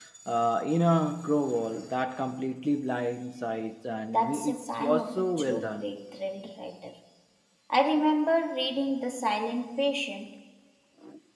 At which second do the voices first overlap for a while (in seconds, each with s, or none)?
4.1 s